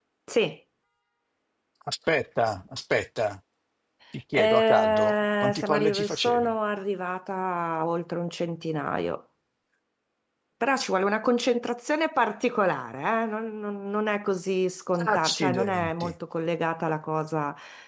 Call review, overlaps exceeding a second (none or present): present